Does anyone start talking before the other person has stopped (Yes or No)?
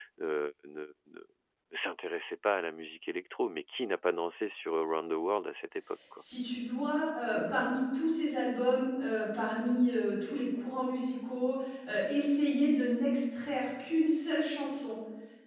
No